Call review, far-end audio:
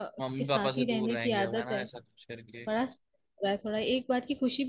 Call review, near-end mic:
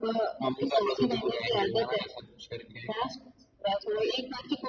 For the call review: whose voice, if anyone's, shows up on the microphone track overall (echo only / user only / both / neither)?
echo only